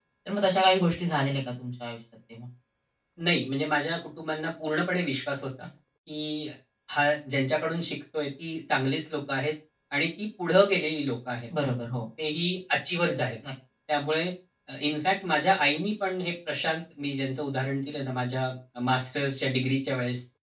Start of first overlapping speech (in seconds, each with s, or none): none